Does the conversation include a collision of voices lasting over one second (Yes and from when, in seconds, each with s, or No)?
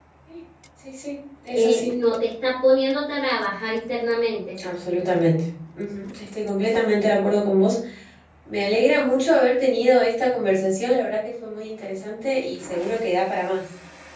No